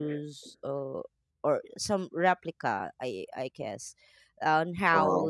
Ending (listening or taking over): listening